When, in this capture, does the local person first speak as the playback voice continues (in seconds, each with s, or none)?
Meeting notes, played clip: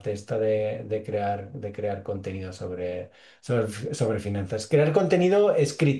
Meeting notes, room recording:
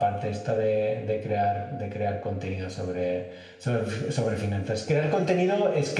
none